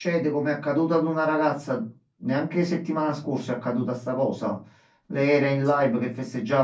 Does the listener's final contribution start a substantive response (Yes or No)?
No